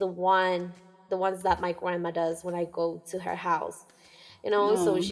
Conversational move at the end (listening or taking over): listening